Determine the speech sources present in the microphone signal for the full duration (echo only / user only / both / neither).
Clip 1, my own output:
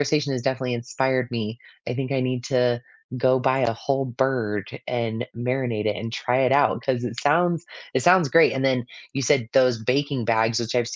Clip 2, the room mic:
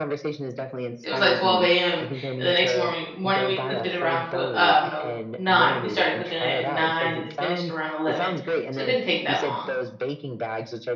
both